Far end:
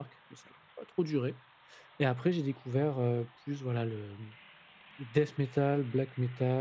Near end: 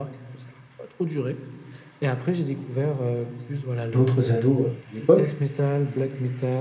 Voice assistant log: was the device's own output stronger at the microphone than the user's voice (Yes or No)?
No